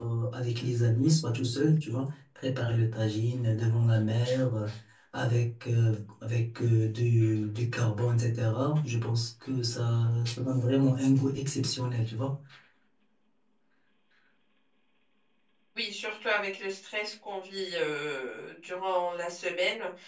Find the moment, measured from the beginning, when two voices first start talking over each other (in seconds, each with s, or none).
none